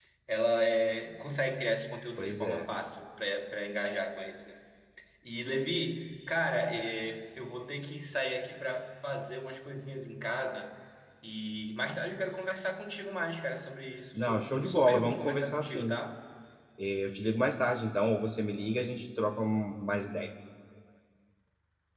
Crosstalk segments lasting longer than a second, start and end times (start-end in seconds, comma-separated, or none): 14.2-16.0